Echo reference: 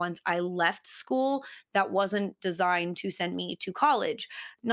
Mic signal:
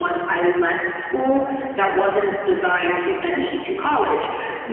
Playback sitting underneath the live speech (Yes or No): No